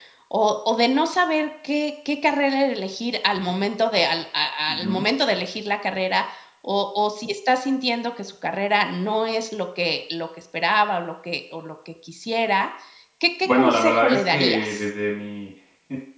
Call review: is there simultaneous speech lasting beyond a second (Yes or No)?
Yes